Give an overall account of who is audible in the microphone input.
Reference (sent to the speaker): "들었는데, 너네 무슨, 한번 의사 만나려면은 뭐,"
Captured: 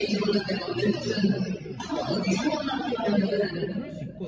both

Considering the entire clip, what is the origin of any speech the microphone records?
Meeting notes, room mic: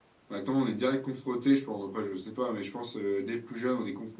user only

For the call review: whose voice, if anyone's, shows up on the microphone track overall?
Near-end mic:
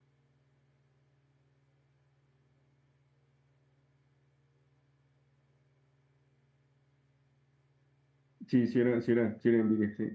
user only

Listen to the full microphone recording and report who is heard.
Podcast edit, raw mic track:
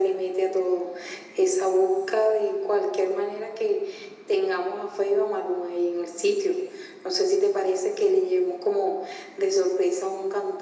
echo only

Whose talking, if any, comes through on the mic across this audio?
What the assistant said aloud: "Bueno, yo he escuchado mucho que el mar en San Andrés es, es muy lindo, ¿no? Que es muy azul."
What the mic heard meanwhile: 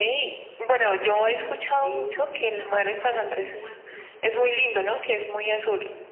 both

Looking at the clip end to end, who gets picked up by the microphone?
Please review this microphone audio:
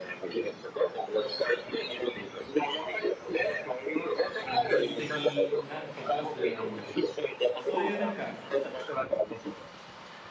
both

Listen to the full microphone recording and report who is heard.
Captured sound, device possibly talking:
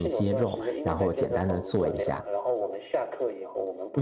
both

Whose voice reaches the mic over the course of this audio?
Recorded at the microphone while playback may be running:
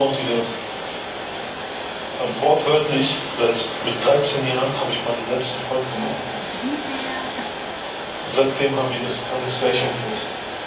both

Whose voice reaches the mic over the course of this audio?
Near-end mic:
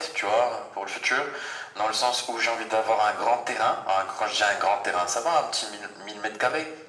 echo only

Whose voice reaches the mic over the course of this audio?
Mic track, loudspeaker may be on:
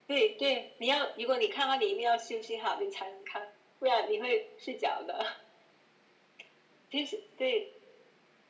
echo only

